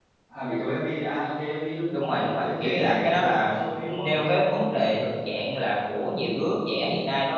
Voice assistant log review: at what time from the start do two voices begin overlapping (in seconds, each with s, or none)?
1.9 s